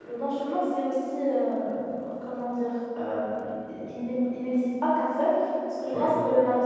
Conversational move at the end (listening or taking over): listening